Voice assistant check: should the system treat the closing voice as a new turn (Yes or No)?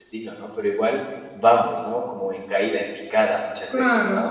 Yes